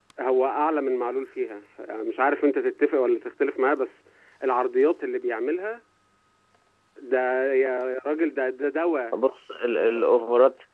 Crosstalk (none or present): none